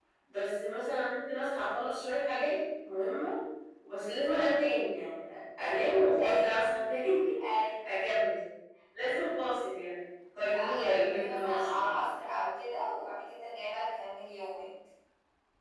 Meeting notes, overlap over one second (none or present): present